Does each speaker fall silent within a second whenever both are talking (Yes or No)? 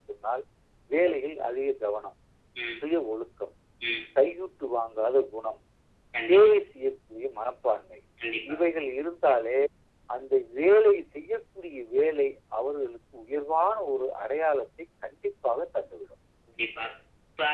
Yes